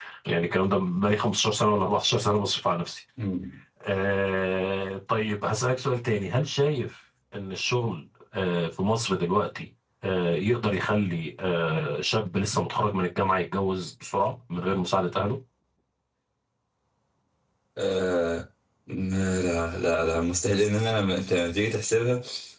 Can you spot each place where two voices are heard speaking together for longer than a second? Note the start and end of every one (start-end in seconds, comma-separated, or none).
none